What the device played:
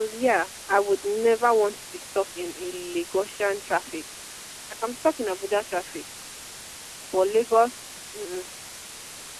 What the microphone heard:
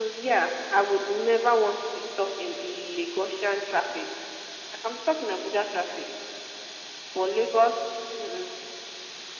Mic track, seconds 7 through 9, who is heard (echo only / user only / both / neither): echo only